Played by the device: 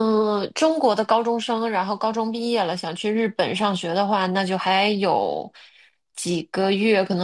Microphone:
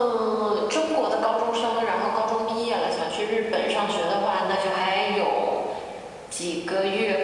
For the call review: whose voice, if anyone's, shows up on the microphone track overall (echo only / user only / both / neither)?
echo only